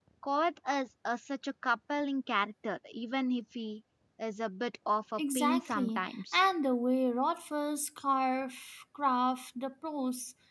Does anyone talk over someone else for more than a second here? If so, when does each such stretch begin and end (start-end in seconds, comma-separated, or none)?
5.2-6.4